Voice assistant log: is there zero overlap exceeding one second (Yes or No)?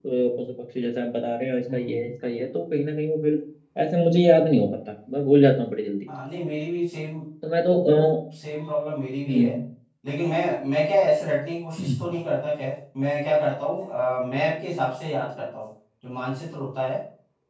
Yes